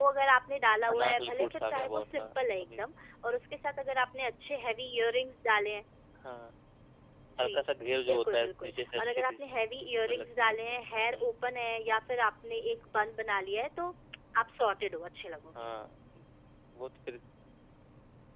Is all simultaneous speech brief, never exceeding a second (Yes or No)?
No